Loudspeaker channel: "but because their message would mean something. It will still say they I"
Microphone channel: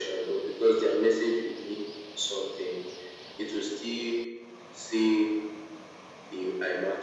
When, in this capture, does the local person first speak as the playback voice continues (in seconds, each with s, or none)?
none